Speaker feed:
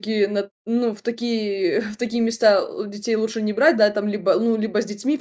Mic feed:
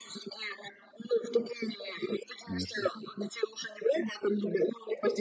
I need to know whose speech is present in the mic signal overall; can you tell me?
both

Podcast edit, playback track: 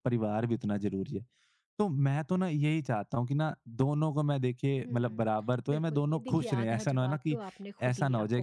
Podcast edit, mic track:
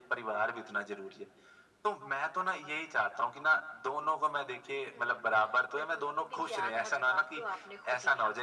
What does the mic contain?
echo only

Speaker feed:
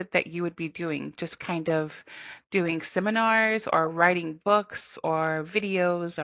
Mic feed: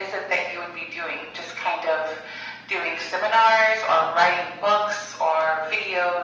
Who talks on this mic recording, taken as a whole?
echo only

